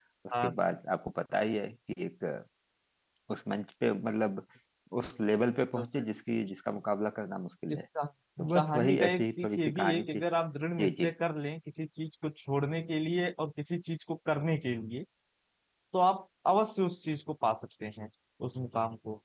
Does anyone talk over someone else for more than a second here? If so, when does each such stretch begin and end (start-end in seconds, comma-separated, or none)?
8.4-10.2